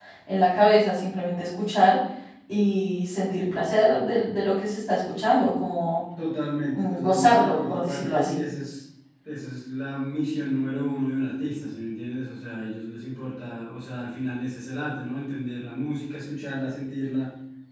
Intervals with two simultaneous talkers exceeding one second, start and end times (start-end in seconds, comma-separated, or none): 6.7-8.4